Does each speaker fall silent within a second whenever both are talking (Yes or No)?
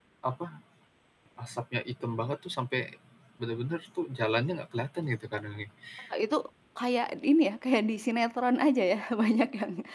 Yes